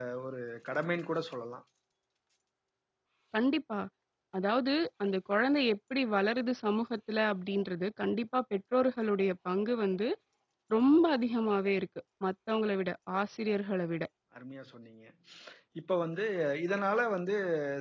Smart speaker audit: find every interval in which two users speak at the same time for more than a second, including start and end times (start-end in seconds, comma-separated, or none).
none